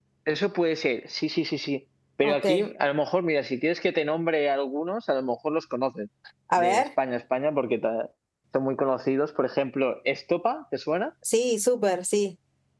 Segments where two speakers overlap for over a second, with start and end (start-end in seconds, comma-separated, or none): none